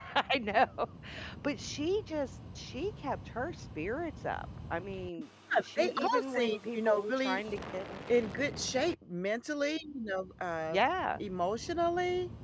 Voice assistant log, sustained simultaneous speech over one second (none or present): present